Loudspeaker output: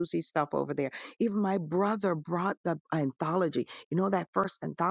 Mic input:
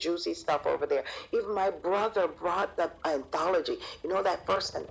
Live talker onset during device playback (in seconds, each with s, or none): none